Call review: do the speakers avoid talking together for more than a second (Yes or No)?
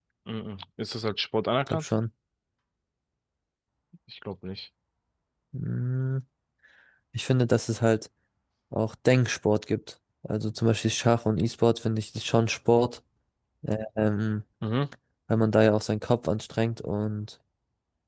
Yes